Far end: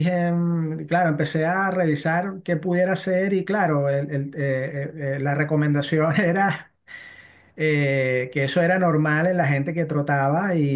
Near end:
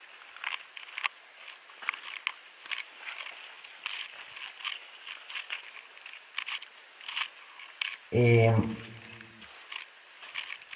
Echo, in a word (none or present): none